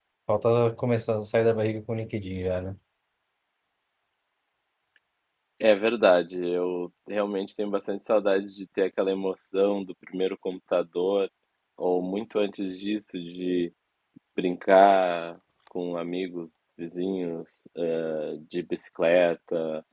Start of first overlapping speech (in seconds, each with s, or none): none